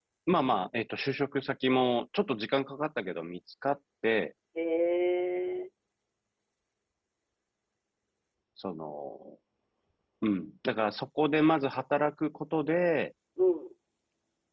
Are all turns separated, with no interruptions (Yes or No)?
Yes